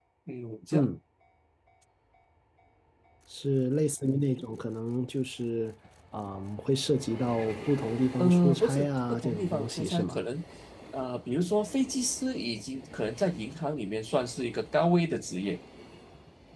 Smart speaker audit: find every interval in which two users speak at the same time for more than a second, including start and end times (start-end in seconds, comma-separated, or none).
8.2-10.2